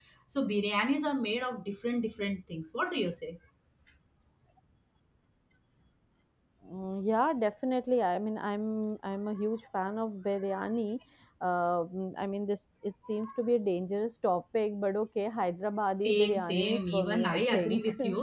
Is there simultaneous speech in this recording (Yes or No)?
Yes